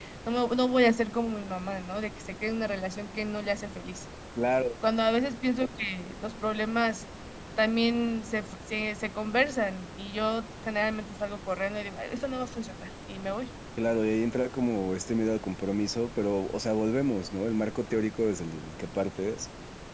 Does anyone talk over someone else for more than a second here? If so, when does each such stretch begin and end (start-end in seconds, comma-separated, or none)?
none